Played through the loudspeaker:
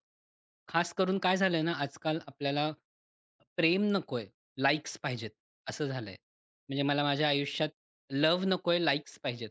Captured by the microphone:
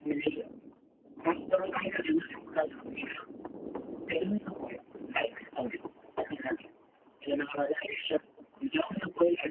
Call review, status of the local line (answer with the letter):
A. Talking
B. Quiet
B